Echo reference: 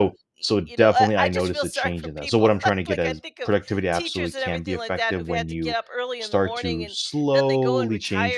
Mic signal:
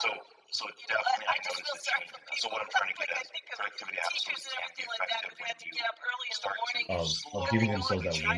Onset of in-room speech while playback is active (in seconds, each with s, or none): 6.9 s